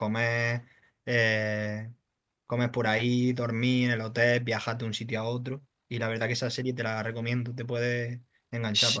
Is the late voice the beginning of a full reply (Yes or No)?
Yes